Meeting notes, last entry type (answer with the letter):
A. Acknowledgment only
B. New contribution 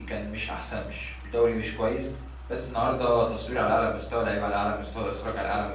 A